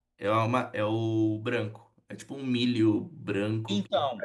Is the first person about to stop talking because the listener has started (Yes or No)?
Yes